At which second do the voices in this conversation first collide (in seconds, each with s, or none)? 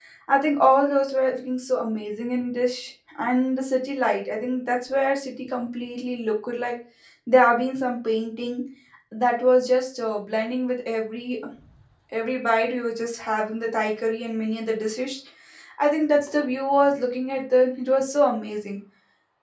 none